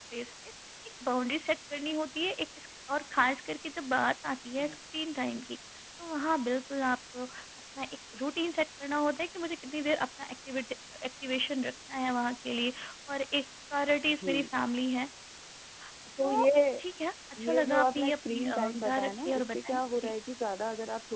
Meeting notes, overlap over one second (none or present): present